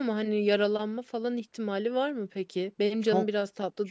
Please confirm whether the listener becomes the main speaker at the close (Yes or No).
Yes